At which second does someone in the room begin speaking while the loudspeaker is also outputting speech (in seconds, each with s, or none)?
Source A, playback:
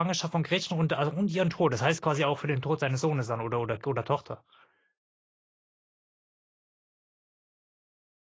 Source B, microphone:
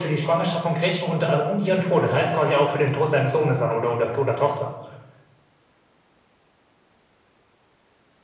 none